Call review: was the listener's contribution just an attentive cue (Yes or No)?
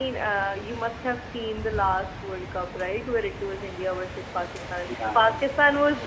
Yes